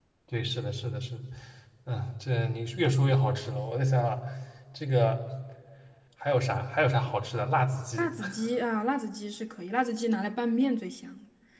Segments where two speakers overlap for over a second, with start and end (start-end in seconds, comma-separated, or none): none